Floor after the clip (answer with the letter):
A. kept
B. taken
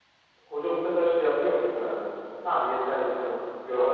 B